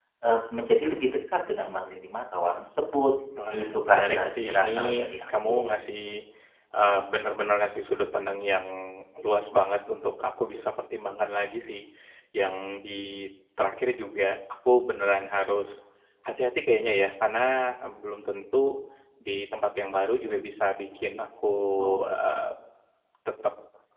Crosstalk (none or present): present